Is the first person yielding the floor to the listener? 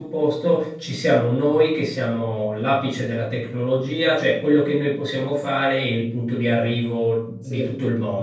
No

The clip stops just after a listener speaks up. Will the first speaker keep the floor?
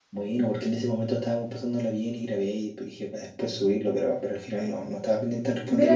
No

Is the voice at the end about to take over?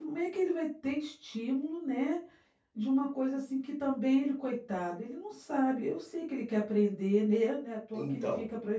Yes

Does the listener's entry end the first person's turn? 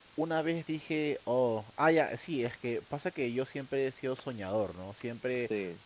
No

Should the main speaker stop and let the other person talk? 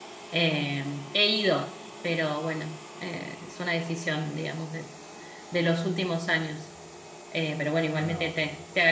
No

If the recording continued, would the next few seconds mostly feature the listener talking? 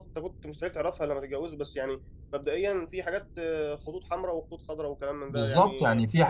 Yes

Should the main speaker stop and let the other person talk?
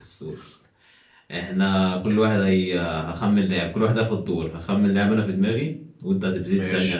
No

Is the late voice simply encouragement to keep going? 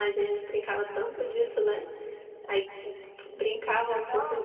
Yes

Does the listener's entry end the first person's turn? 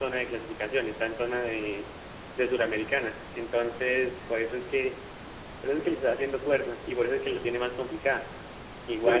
Yes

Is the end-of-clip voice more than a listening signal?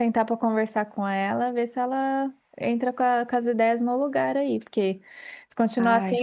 No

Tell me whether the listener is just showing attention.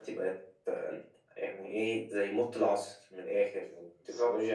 Yes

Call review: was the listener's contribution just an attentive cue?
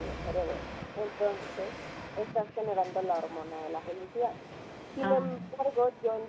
Yes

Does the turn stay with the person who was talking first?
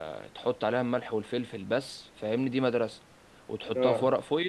Yes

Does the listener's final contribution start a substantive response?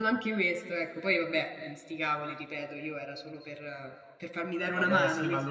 Yes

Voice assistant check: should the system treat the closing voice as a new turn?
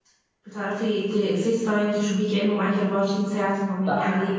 Yes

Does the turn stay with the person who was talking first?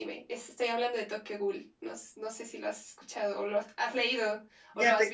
No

